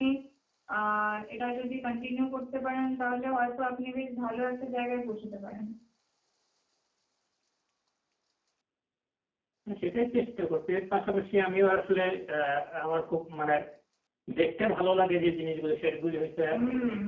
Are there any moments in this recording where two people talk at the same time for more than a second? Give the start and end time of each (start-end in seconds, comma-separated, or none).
none